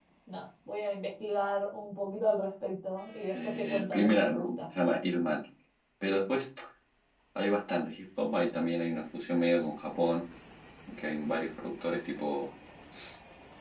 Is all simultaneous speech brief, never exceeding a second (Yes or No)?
No